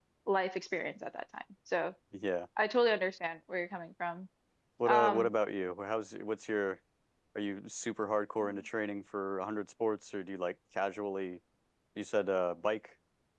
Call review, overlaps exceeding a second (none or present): none